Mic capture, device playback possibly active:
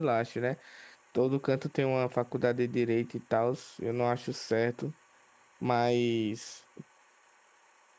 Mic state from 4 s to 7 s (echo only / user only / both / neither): user only